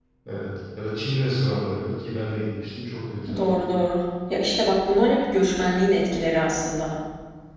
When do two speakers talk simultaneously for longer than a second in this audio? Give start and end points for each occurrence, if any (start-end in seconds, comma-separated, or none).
none